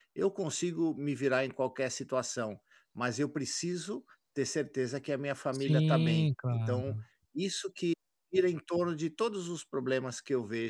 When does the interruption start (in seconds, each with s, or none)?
5.5 s